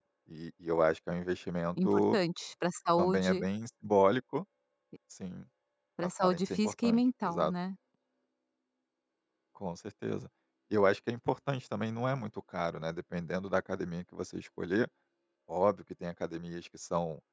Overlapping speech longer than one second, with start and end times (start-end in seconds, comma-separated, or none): 6.0-7.5